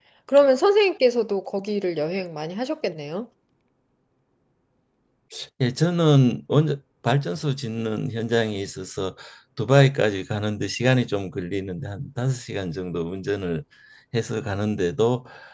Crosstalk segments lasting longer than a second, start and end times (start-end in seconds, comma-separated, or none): none